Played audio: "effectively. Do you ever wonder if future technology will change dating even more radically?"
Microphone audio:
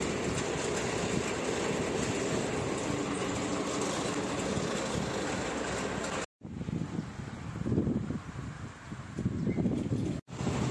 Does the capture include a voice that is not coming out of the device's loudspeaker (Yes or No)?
No